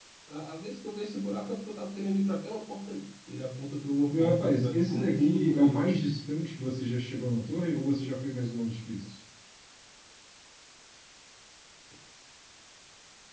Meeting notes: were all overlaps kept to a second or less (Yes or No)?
No